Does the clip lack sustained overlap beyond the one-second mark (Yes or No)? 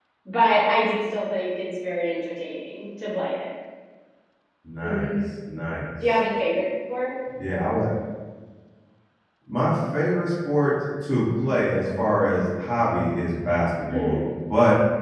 Yes